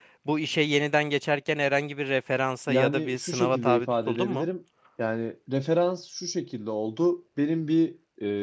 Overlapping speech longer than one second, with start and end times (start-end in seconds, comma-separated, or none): 2.7-4.5